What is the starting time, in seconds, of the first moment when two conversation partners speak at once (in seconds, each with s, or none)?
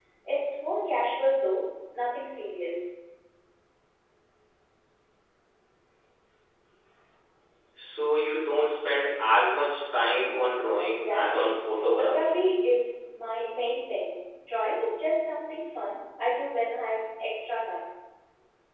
10.8 s